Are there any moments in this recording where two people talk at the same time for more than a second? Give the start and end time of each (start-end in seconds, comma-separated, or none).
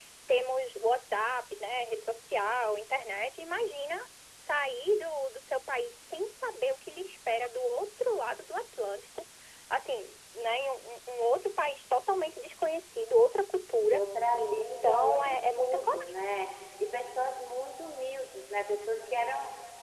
14.6-16.2